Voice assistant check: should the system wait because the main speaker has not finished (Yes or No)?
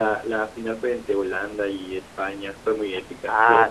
No